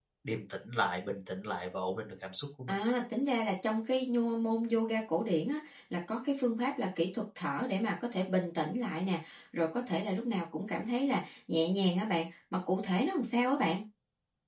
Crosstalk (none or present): none